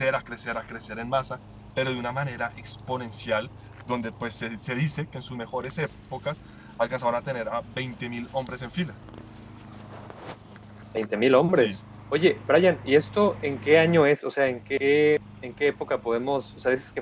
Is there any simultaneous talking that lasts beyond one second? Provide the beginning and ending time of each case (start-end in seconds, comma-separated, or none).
none